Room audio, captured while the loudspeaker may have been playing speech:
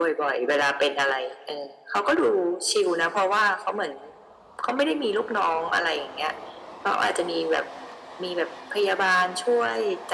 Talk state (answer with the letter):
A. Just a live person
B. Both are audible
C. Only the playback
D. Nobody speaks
C